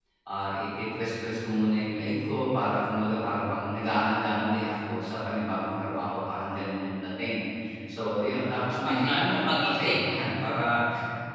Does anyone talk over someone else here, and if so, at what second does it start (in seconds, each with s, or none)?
8.8 s